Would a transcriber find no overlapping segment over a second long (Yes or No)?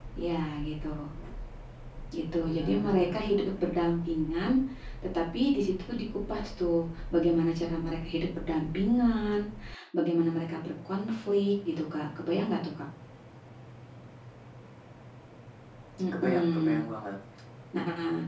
No